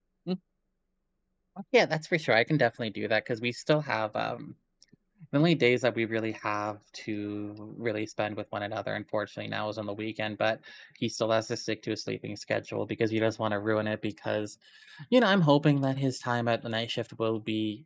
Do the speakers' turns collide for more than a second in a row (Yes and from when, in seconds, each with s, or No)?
No